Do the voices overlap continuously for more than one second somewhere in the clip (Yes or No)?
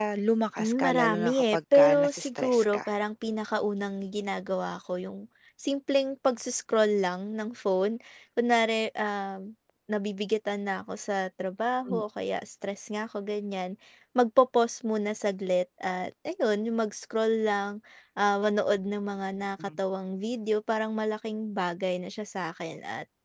Yes